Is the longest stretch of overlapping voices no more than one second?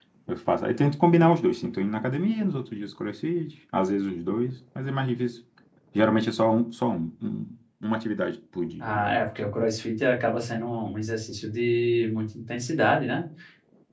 Yes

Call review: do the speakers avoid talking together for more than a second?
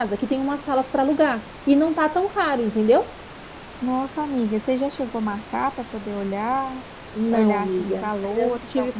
No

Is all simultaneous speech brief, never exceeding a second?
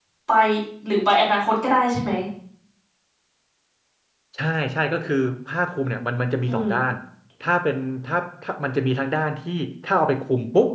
Yes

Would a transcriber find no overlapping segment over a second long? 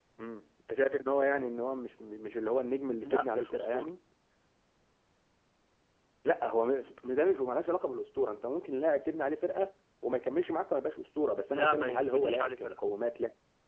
No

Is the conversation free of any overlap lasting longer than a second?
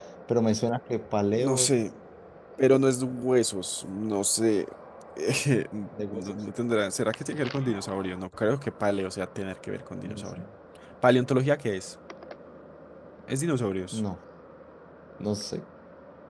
Yes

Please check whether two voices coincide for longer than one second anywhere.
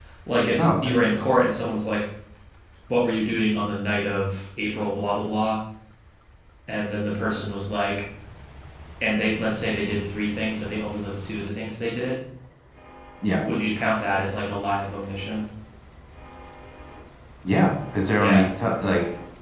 No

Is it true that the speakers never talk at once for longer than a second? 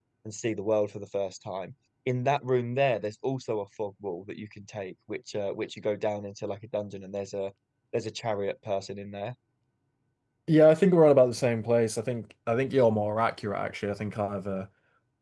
Yes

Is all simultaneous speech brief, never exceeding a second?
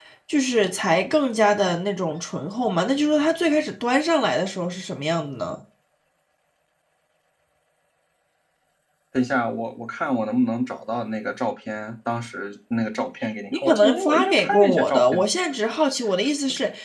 No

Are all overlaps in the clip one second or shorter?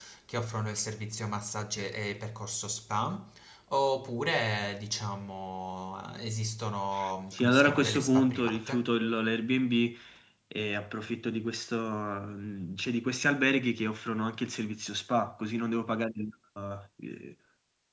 No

